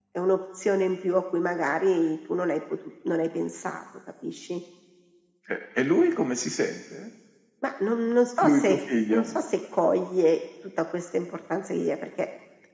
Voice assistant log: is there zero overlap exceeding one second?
Yes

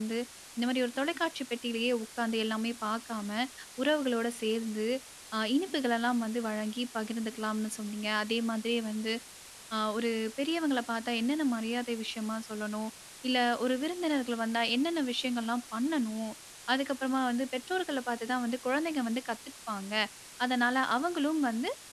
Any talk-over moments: No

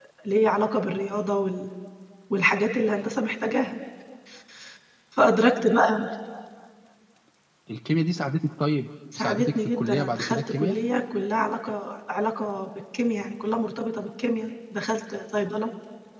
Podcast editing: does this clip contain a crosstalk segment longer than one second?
Yes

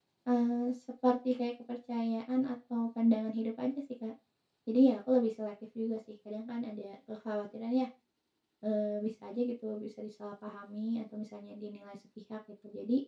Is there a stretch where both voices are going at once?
No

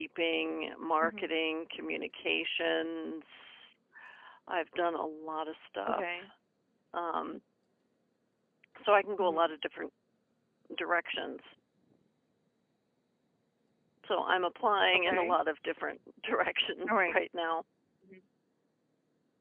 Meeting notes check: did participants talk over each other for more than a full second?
No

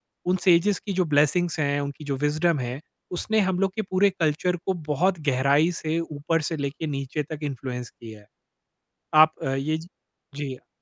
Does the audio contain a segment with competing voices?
No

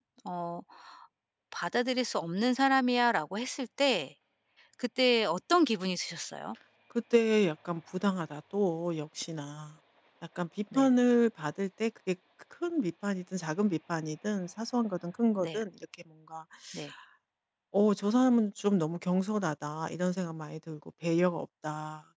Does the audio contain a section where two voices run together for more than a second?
No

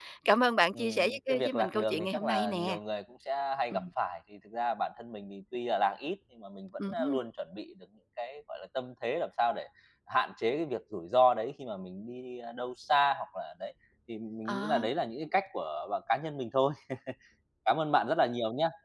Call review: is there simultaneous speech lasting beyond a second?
Yes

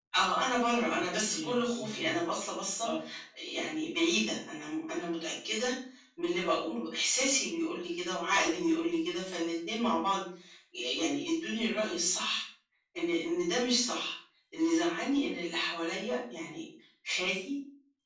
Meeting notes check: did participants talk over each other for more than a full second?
Yes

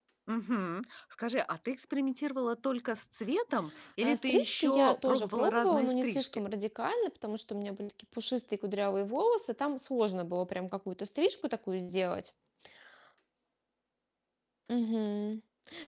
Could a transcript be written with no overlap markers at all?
No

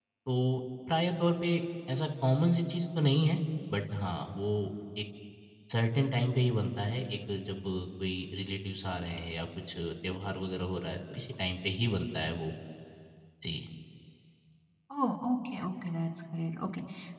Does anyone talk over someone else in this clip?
No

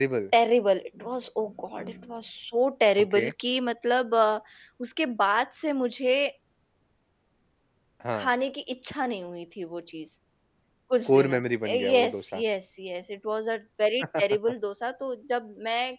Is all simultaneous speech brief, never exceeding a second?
No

